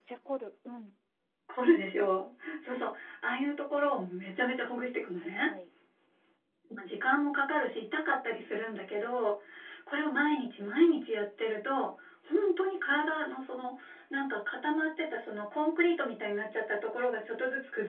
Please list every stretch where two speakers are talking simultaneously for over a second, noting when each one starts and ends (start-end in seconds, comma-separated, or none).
none